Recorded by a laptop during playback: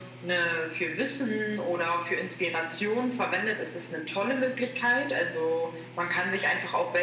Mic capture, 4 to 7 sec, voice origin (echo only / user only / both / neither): echo only